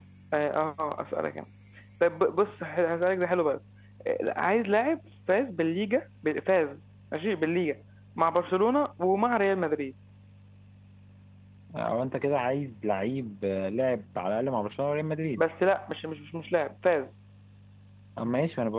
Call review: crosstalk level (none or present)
none